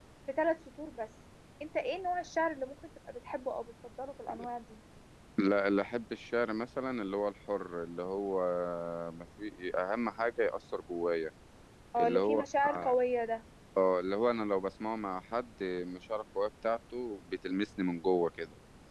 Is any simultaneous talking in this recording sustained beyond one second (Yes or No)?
No